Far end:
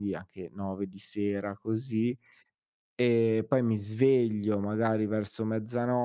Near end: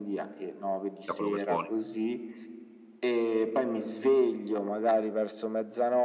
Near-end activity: present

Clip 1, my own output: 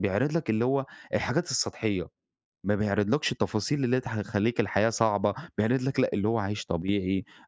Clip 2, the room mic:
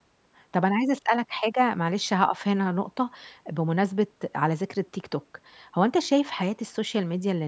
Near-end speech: present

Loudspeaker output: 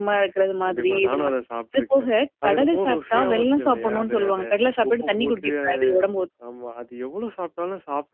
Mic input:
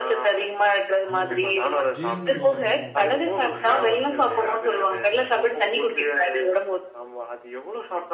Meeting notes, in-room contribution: present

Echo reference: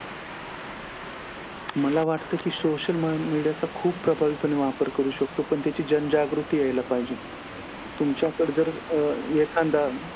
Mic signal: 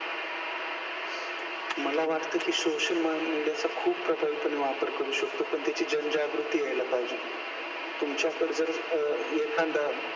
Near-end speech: none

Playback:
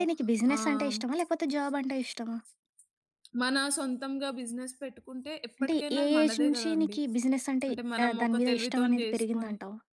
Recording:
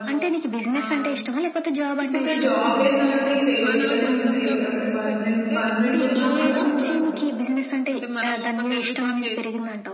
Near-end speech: present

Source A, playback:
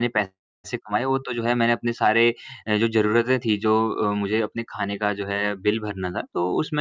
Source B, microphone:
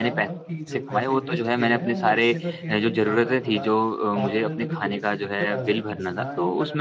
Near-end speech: present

